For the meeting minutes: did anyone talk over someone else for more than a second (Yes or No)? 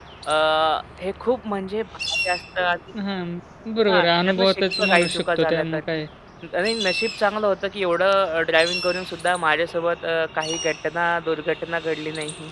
Yes